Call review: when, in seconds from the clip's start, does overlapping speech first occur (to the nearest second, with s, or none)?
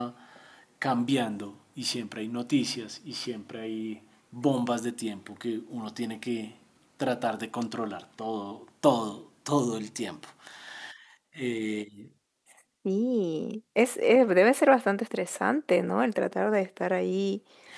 none